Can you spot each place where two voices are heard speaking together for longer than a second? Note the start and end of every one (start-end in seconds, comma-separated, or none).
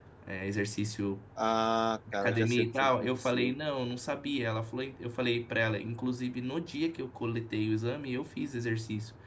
2.2-3.5